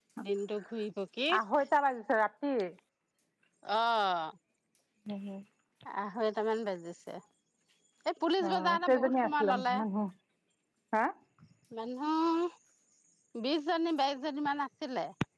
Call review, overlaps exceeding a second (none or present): present